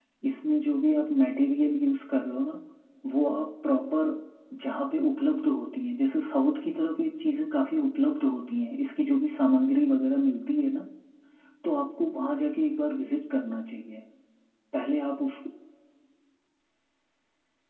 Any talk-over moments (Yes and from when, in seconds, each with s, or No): No